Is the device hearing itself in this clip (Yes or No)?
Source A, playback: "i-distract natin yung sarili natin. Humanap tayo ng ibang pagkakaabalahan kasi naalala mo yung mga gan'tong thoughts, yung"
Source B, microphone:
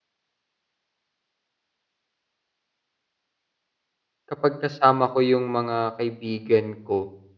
No